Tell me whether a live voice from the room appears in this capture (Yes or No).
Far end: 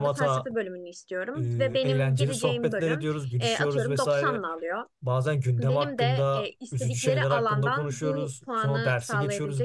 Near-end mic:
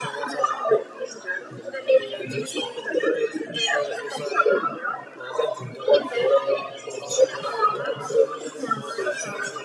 Yes